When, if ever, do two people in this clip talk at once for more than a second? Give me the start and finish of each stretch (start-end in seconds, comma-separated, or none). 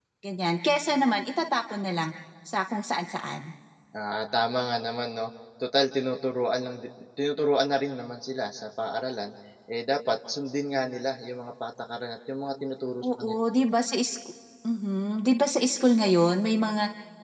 none